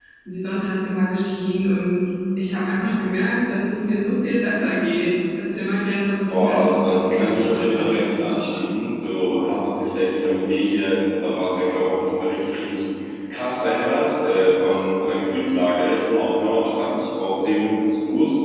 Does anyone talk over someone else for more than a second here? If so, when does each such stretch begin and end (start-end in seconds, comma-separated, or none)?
6.3-8.7